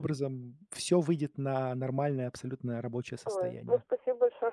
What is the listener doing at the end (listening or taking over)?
taking over